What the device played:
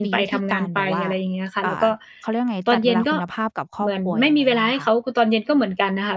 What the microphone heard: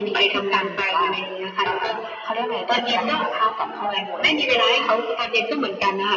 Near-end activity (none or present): none